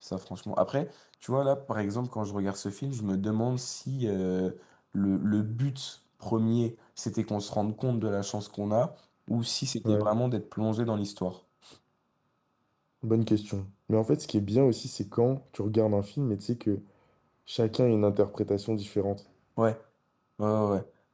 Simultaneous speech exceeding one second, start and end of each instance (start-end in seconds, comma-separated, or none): none